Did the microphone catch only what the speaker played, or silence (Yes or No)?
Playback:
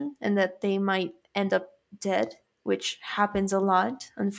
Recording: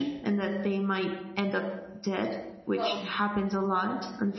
No